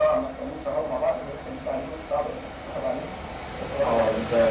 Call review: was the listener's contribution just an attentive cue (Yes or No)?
No